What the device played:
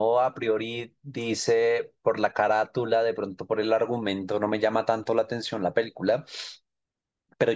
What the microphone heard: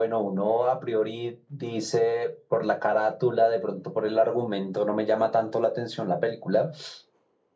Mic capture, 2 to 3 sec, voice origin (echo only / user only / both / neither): echo only